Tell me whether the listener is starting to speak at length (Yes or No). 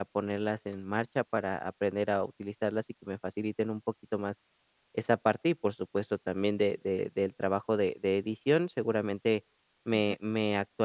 No